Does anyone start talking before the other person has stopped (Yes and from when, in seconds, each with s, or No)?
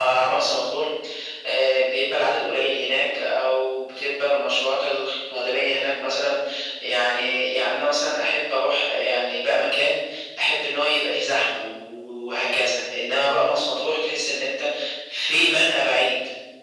No